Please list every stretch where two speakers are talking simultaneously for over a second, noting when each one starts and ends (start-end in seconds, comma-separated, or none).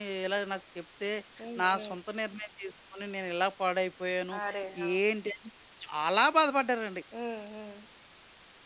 none